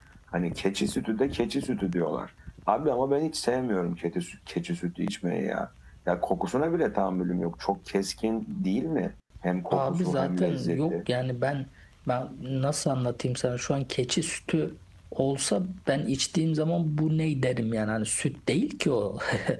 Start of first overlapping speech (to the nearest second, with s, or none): 10 s